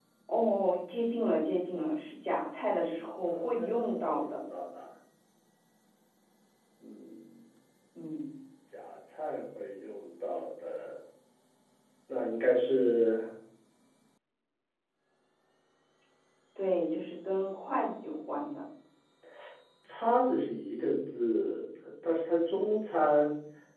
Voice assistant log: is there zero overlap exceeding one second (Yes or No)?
No